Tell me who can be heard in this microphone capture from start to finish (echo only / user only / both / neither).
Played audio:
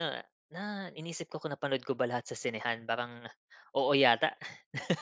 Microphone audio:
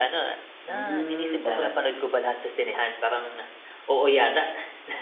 both